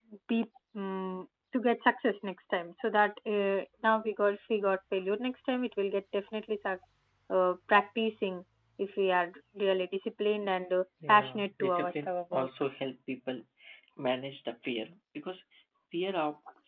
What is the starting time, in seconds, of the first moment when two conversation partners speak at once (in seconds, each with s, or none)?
11.0 s